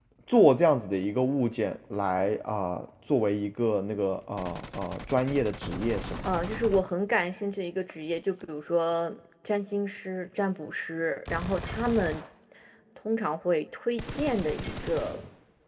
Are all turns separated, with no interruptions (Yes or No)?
Yes